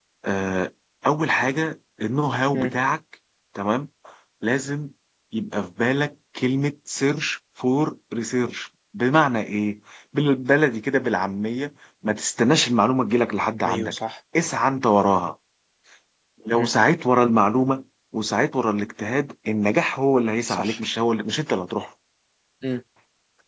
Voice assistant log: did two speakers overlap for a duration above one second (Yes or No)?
No